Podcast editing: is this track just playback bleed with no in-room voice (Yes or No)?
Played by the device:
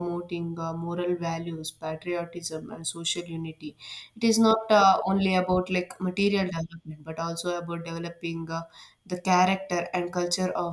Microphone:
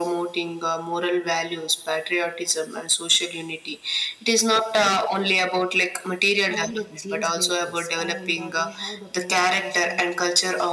No